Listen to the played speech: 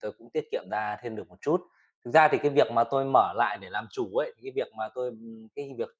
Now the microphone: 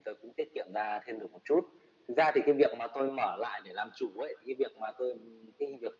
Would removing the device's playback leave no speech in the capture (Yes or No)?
Yes